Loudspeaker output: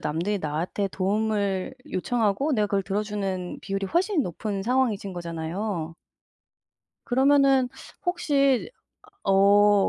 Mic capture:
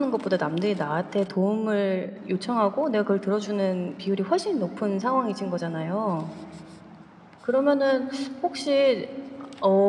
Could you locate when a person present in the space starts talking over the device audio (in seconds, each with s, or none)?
none